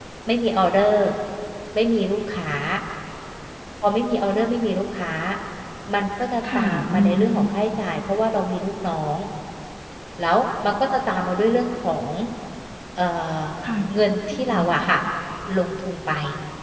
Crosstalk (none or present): present